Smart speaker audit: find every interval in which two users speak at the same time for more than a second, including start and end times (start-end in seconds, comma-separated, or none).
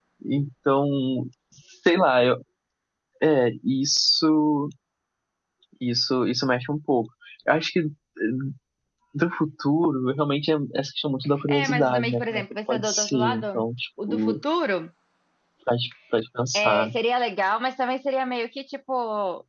11.6-13.4